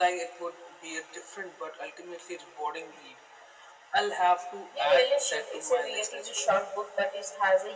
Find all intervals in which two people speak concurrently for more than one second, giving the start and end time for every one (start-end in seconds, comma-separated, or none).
4.8-6.5